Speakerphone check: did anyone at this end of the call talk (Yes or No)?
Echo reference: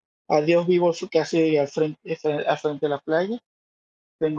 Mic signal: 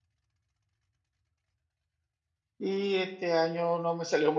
Yes